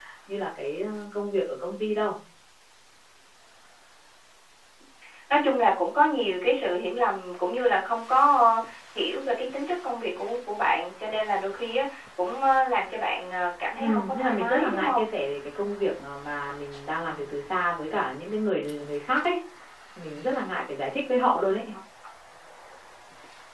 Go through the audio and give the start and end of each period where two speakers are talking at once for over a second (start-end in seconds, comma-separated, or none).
13.8-15.0